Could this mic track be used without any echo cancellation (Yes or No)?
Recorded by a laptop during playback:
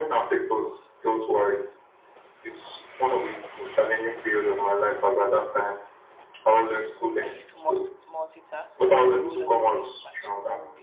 No